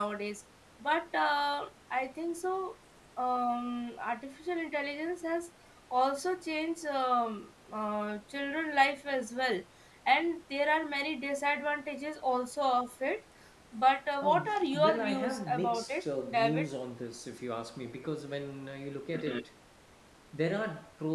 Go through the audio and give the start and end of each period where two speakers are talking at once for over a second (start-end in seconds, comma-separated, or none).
14.2-16.7